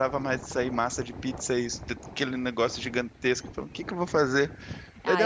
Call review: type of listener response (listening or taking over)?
taking over